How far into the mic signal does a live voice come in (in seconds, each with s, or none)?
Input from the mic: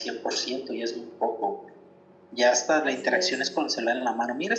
2.8 s